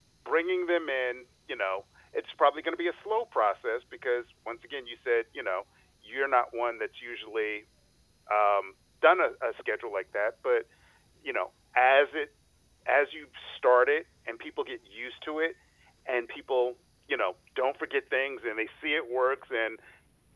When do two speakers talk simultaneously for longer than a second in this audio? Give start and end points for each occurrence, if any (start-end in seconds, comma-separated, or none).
none